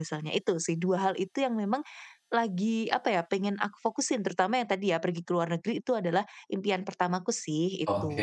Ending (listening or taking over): taking over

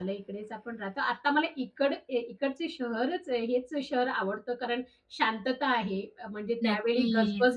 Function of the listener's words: listening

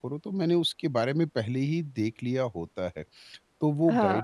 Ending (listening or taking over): listening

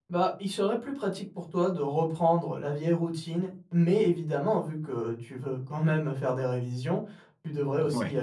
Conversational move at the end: listening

